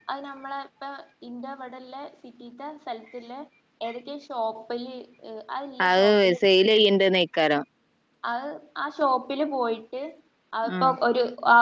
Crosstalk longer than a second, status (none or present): none